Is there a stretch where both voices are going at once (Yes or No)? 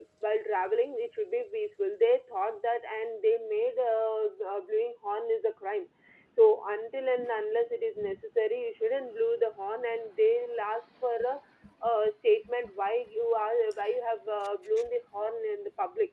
No